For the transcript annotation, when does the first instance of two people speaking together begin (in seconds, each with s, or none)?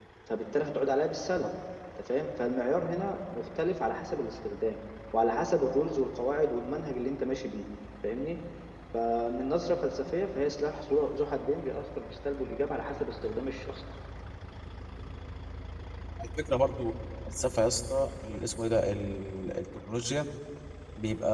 none